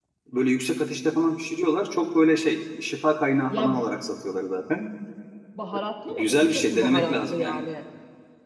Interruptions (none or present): present